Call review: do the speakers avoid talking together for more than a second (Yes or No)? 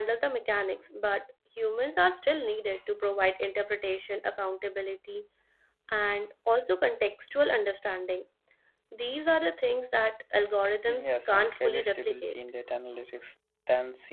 No